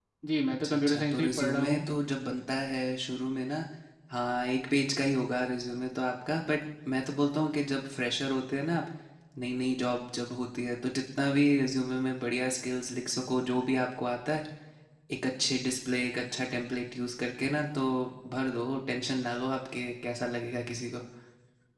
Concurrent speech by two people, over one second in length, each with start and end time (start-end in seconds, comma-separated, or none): 0.5-1.8